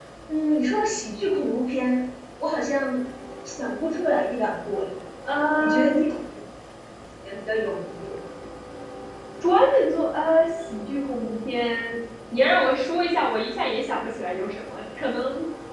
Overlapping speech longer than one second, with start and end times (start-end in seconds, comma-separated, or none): none